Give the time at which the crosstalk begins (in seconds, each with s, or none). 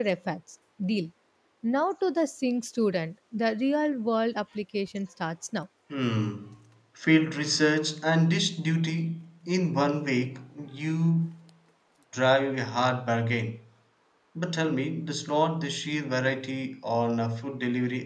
none